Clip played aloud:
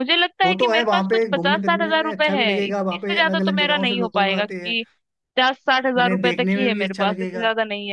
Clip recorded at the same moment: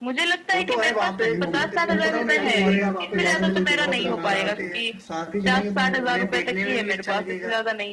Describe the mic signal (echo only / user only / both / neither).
both